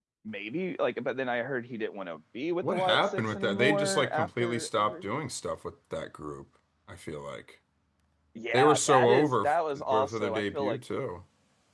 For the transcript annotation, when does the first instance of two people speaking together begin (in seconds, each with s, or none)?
2.6 s